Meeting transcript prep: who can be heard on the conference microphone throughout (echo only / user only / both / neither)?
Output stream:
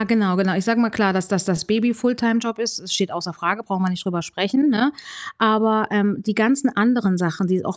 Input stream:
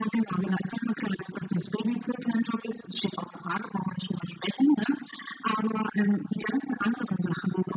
echo only